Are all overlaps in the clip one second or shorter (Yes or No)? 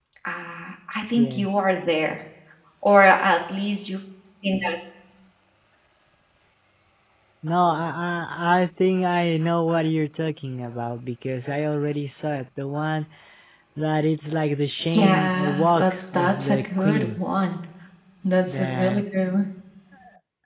No